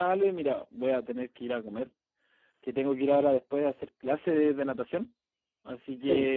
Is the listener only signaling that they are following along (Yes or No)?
Yes